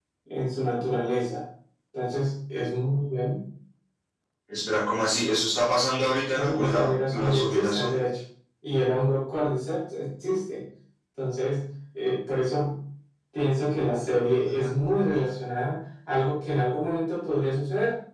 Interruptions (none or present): present